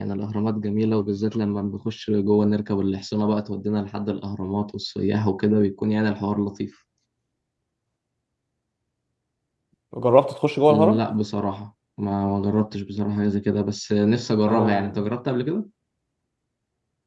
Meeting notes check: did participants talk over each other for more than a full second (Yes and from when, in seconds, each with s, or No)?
No